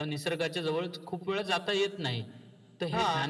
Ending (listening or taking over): listening